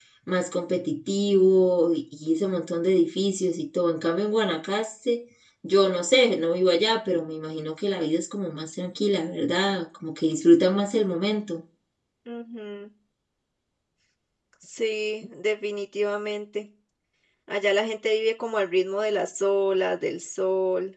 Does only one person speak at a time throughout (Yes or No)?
Yes